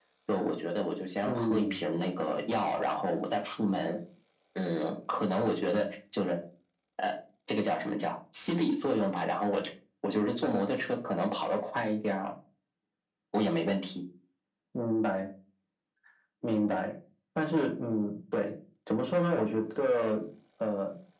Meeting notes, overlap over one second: none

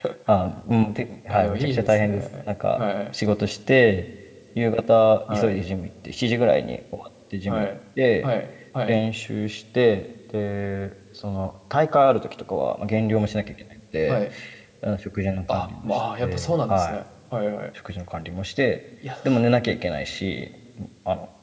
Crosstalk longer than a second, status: present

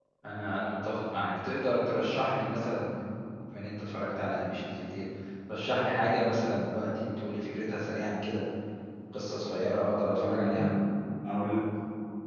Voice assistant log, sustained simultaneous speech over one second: none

